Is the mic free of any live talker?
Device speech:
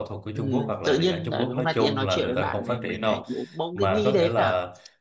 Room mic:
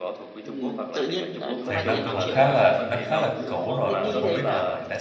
No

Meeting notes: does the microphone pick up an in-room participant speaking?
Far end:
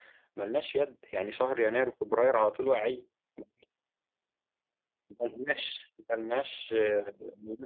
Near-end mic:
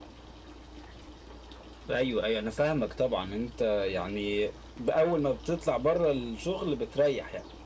Yes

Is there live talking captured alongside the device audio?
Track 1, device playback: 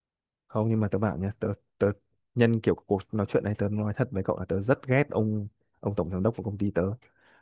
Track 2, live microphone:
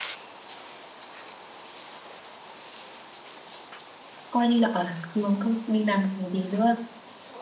Yes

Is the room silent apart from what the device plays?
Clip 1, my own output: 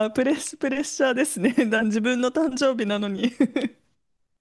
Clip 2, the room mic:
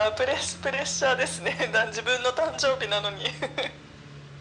Yes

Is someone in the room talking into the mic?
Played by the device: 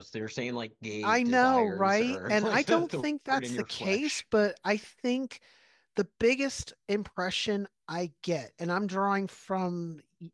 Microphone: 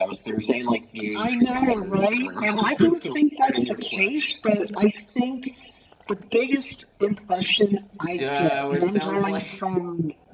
Yes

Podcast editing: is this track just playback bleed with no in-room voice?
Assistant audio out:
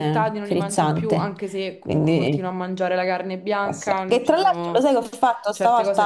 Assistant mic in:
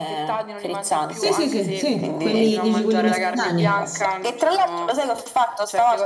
No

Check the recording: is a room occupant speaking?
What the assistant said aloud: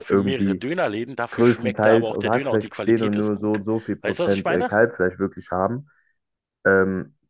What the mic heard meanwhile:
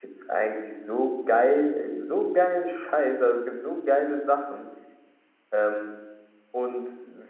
Yes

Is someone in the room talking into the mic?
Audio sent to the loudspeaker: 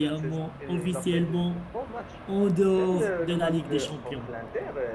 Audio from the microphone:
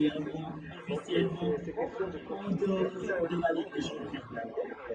Yes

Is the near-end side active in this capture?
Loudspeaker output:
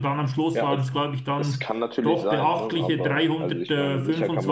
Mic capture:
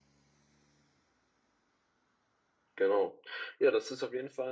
Yes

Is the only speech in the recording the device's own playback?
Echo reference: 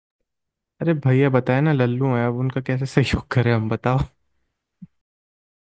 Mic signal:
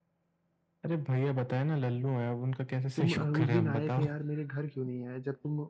No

